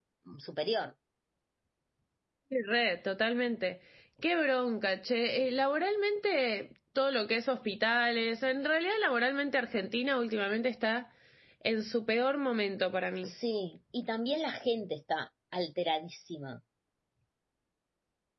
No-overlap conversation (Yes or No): Yes